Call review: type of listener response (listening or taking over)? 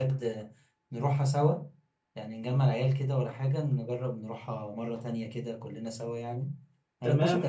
taking over